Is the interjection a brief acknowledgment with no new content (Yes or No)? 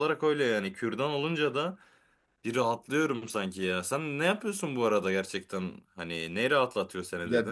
No